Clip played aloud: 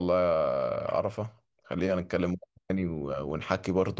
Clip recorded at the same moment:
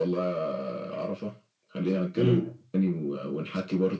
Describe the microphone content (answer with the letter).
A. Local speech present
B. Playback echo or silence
A